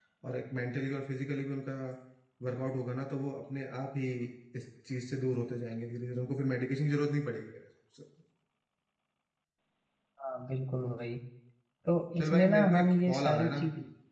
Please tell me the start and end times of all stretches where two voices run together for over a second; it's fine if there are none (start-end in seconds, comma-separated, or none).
12.2-13.6